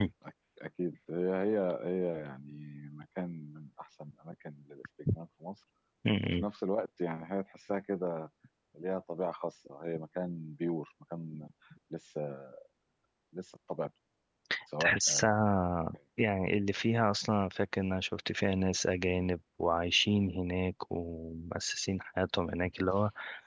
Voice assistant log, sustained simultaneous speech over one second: none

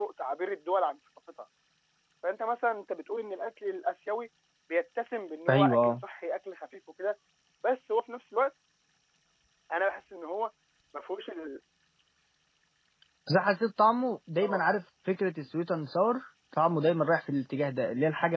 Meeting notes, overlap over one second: none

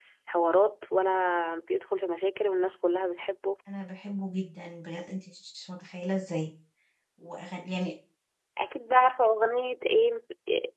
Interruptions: none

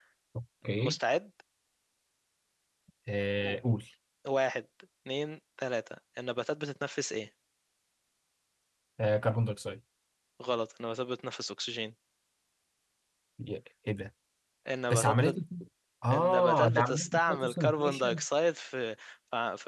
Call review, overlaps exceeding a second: present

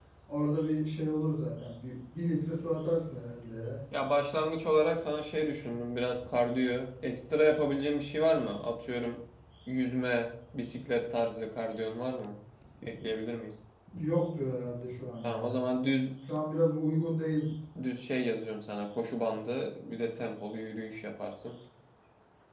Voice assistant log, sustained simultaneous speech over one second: none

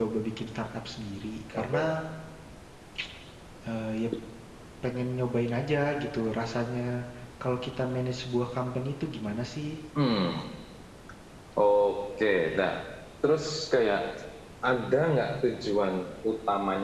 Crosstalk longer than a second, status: none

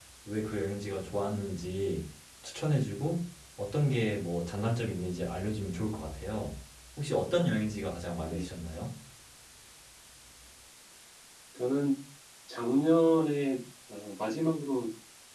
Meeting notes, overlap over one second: none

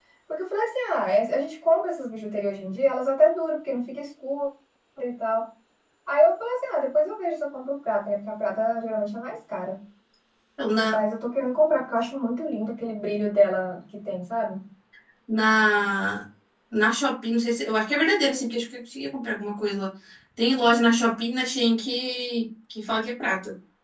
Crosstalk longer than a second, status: none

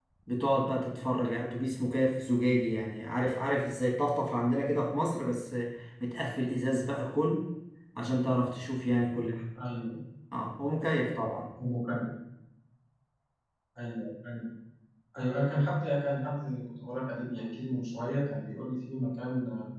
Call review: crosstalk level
none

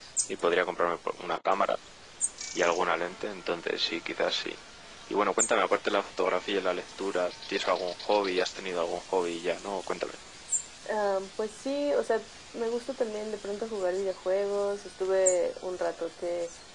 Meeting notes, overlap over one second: none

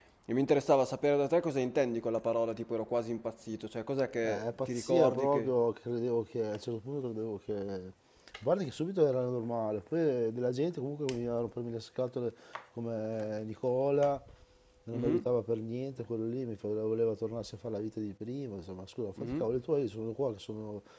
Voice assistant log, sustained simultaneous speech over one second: present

